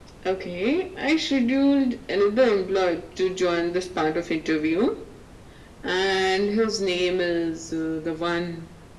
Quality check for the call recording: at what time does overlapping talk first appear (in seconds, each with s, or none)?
none